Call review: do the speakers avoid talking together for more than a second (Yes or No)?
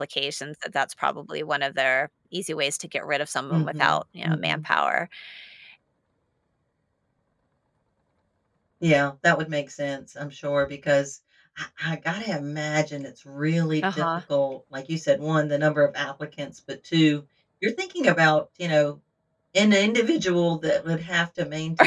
Yes